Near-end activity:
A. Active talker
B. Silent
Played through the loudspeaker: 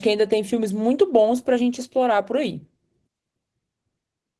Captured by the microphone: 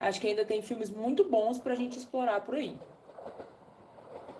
B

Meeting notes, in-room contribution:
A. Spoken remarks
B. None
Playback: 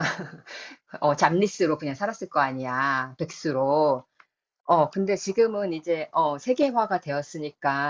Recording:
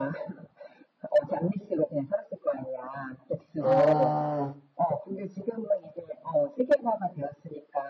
A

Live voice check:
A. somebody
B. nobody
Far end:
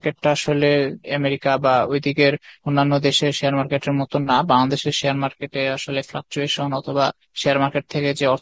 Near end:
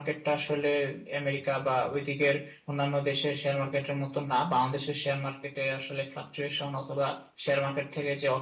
B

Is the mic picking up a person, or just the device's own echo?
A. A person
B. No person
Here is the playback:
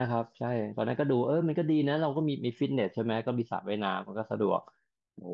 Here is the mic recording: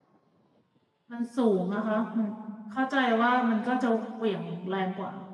A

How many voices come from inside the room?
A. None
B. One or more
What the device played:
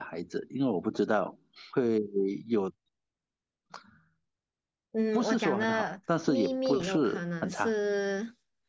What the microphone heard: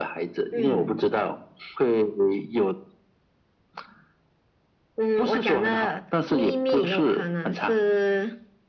B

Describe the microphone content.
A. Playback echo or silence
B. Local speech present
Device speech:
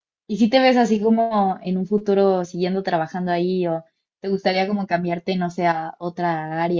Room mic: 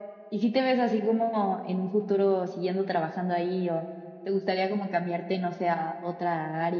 A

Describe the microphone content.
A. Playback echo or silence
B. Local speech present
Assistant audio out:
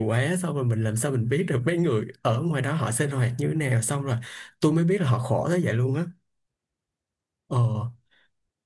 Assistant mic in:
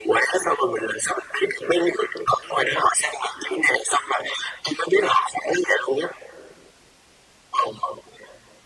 A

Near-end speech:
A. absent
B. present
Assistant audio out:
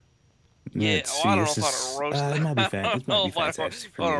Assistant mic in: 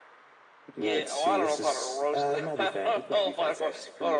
A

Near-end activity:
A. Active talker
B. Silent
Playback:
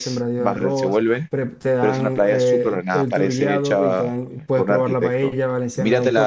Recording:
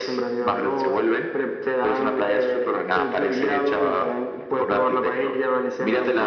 B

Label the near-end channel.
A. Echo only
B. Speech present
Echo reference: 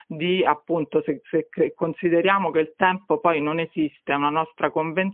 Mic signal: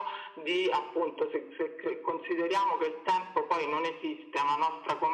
A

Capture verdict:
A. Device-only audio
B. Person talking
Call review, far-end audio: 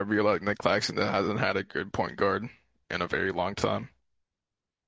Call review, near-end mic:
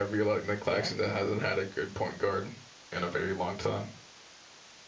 B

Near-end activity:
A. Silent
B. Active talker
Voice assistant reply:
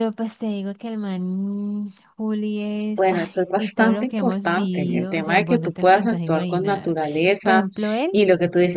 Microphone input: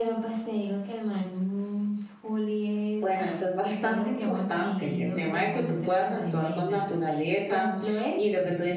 A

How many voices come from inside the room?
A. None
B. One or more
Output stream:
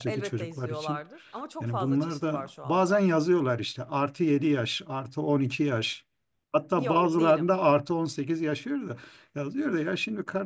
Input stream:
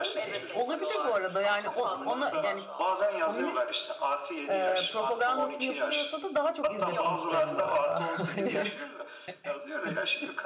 B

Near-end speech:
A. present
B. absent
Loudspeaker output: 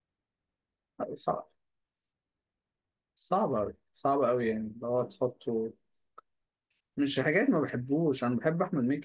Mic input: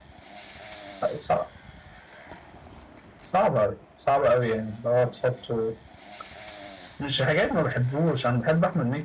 B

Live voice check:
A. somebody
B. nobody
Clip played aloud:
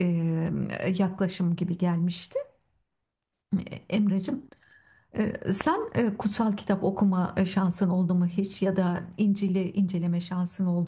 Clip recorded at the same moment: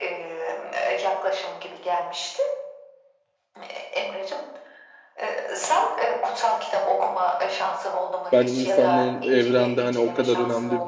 A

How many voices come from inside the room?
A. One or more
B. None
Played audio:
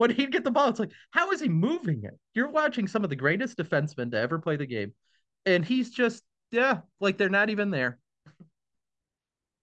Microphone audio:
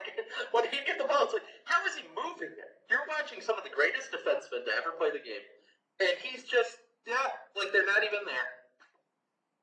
B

